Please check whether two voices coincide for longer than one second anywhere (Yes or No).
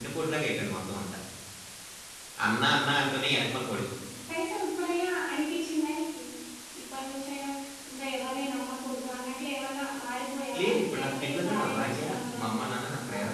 Yes